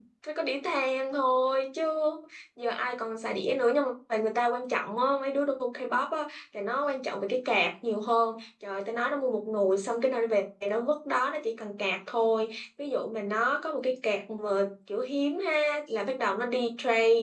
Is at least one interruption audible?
No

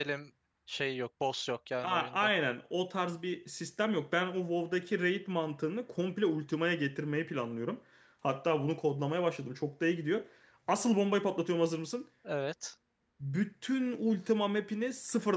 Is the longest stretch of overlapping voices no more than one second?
Yes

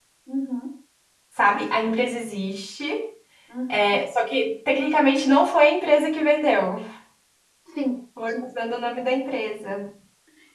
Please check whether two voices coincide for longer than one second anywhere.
No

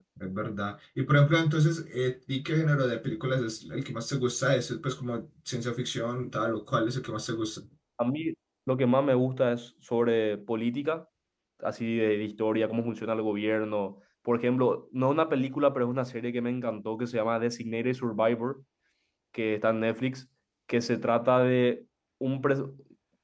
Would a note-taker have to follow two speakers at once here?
No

